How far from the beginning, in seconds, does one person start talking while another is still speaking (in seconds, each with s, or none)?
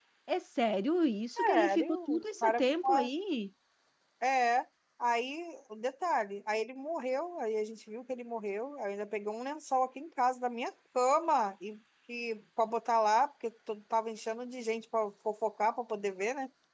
1.4 s